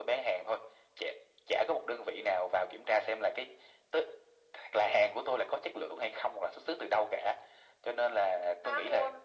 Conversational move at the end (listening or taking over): listening